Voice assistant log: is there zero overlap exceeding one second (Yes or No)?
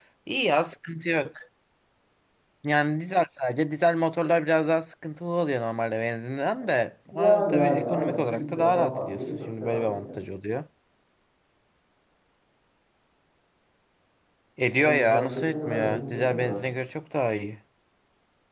No